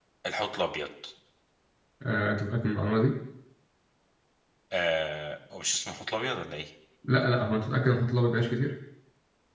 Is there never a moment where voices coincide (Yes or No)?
Yes